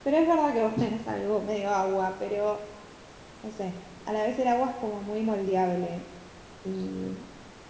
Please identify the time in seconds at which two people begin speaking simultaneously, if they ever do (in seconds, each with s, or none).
none